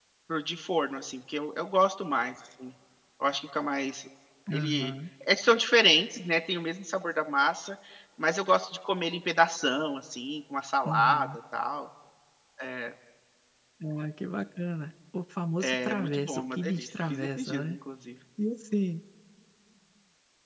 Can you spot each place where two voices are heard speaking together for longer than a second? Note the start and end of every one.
15.6-17.8

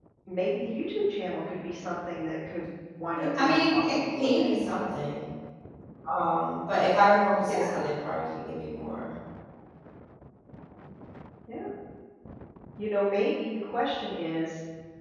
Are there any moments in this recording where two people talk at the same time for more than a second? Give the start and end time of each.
3.1-4.6

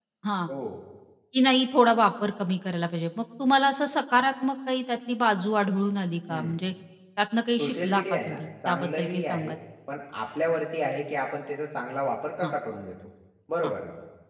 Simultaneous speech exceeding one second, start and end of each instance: 7.6-9.6

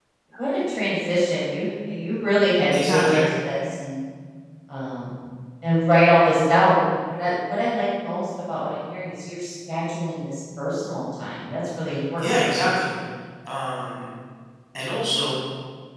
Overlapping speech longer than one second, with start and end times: none

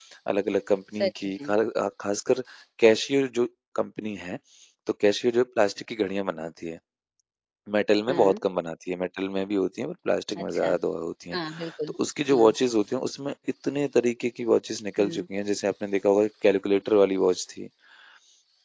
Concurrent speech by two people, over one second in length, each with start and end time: none

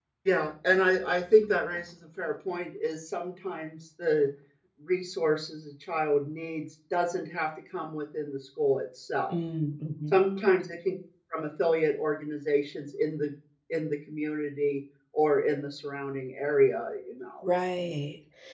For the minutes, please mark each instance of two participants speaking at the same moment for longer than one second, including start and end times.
none

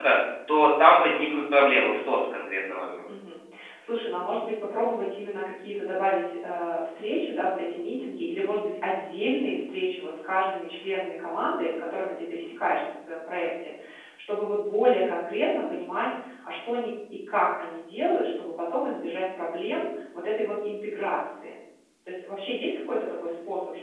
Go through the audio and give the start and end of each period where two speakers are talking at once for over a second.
none

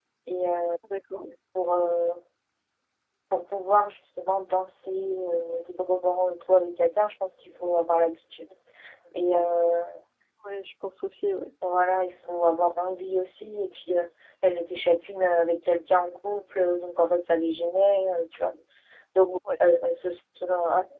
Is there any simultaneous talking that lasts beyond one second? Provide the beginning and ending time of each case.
none

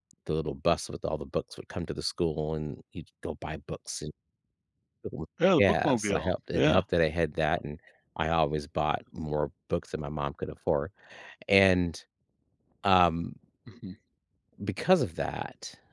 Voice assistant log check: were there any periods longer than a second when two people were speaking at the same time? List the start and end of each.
5.6-6.8

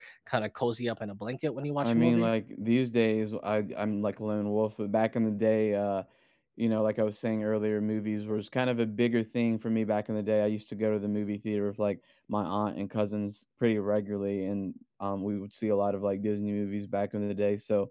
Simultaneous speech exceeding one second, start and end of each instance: none

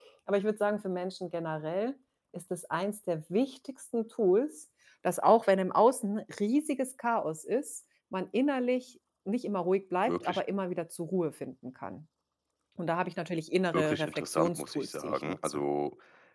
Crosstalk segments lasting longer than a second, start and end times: 13.7-15.6

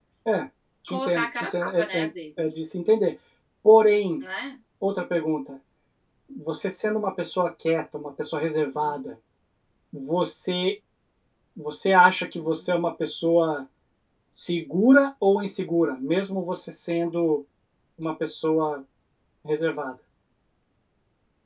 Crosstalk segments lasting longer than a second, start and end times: 0.9-2.1

